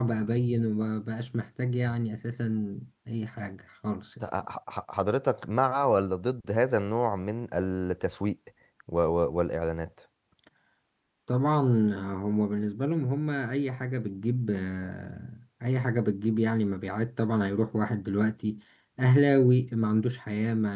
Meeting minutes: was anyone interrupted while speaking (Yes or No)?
No